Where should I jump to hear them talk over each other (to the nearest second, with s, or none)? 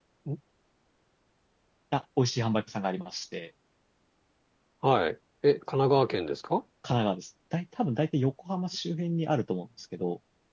none